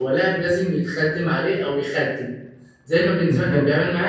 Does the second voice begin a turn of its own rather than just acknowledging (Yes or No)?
No